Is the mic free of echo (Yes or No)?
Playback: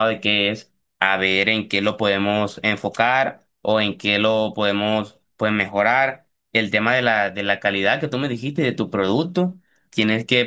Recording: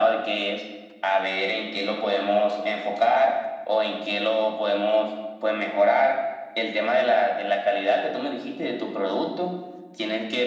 No